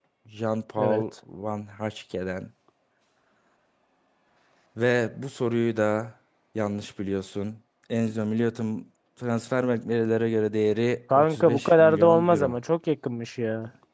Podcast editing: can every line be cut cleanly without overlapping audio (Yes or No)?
No